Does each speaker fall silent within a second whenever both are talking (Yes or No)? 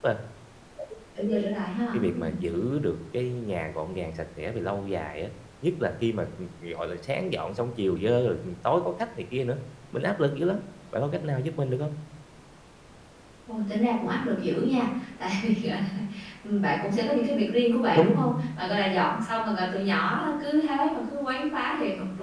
Yes